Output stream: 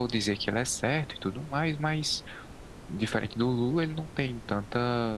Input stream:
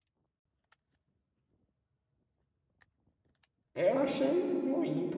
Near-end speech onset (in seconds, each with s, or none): 3.7 s